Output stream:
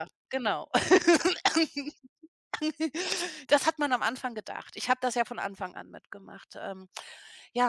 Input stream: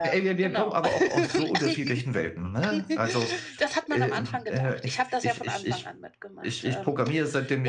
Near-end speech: present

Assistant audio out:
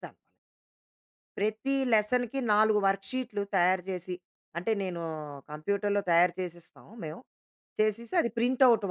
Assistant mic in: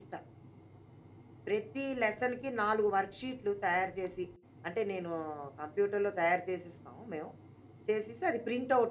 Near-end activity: none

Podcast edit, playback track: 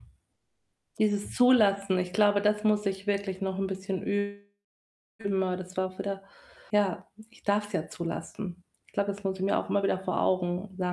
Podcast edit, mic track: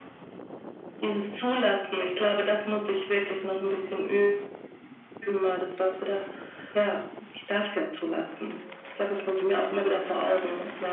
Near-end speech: none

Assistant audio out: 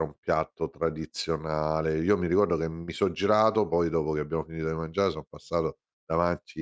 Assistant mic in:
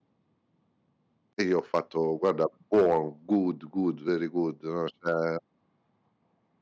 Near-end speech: present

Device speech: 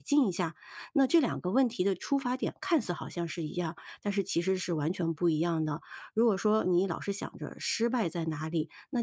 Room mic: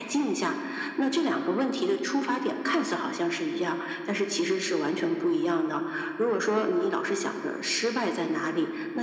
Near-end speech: none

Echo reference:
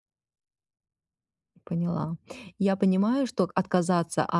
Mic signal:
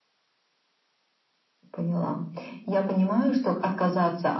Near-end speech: none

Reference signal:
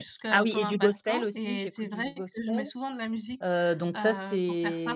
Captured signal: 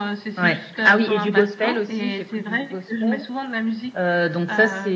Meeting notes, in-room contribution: none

